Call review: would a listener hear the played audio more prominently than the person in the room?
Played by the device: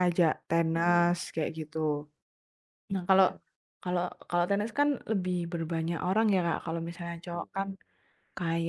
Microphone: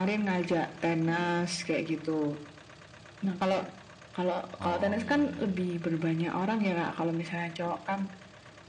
Yes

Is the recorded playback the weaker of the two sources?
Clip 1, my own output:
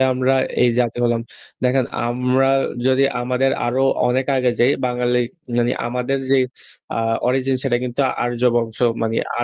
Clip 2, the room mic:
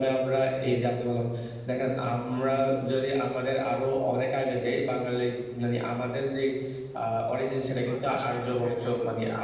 No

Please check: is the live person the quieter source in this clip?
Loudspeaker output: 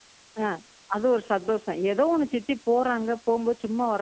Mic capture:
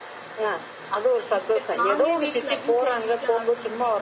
Yes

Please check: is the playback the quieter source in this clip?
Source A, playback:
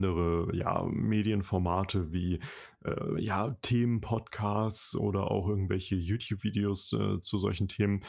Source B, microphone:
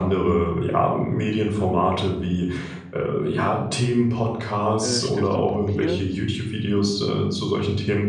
No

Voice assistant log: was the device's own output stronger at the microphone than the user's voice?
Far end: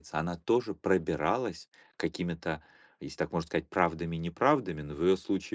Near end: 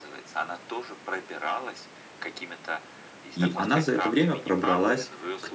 No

